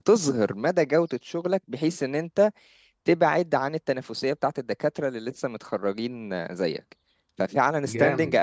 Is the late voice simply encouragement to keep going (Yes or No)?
Yes